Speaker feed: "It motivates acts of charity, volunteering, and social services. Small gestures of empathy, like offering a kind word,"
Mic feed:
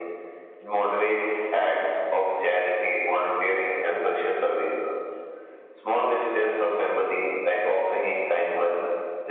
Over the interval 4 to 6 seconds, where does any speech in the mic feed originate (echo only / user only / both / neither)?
echo only